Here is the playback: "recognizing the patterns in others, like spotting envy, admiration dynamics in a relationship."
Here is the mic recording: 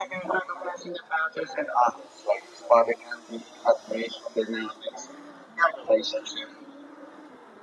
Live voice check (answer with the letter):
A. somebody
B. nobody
B